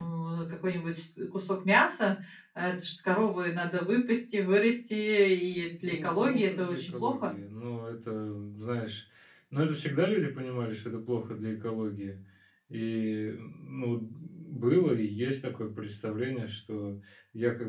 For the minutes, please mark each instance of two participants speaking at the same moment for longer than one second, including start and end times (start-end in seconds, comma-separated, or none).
5.8-7.3